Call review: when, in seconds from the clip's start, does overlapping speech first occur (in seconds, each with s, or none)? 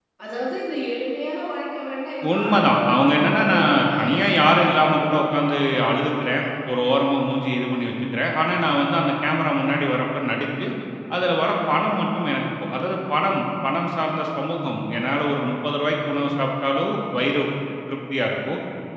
2.2 s